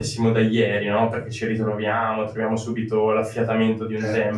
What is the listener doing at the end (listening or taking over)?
listening